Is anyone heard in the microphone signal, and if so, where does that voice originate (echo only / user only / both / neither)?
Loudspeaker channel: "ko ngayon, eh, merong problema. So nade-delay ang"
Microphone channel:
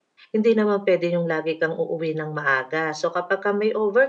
user only